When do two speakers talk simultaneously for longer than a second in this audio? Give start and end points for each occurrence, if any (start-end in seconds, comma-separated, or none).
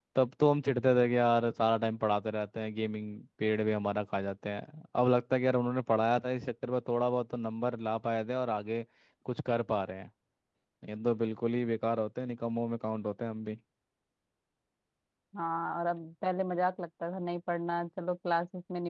none